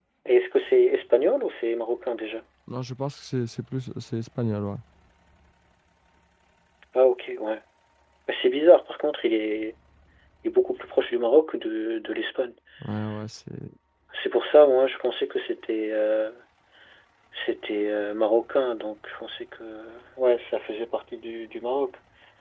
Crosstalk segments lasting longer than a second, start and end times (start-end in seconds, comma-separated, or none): none